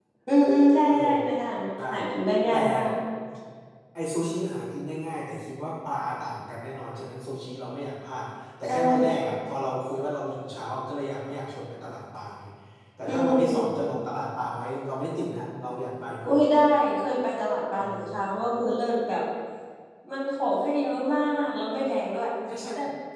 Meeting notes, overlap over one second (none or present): none